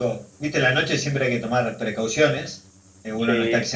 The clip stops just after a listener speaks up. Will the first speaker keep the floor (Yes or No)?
Yes